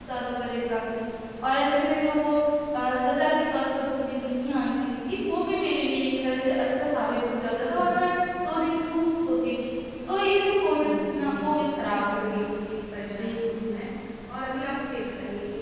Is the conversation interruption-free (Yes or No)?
No